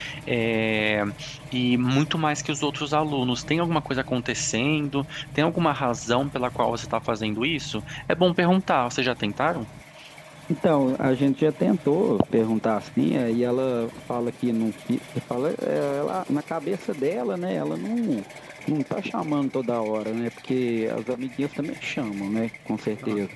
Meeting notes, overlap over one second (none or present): none